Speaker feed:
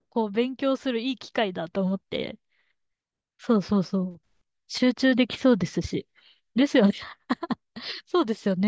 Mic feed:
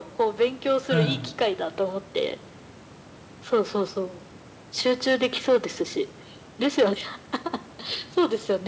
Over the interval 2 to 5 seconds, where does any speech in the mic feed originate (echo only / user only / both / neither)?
echo only